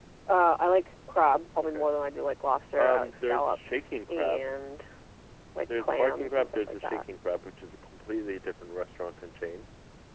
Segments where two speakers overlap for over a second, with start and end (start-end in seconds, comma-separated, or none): 2.8-4.5, 5.8-7.0